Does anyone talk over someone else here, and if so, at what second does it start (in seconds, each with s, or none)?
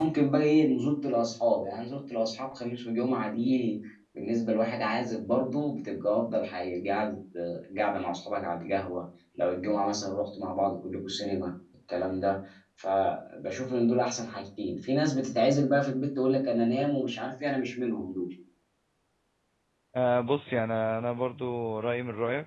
none